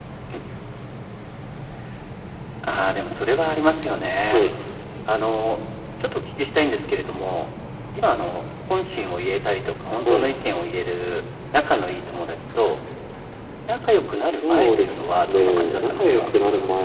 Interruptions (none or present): present